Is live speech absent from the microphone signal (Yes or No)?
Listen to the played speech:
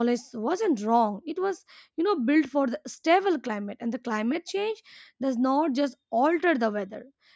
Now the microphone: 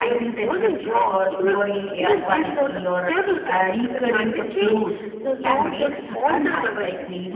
No